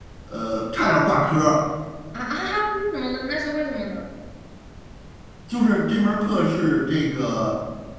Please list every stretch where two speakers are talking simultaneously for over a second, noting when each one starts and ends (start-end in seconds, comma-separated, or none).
none